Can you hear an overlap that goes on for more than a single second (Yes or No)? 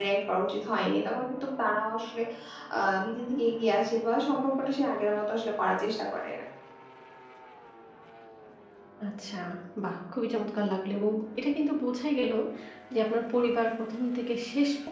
No